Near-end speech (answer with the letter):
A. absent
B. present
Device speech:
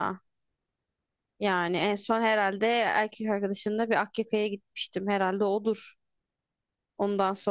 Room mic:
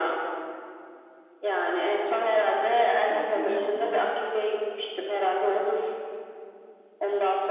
B